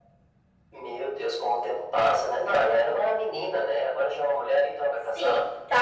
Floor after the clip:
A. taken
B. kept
A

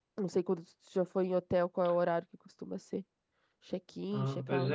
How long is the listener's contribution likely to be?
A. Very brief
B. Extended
B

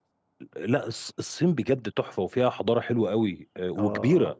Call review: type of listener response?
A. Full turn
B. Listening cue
A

